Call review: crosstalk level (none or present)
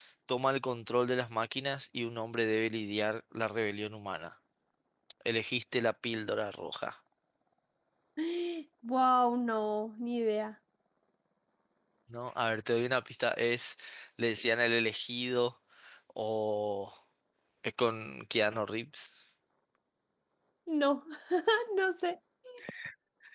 none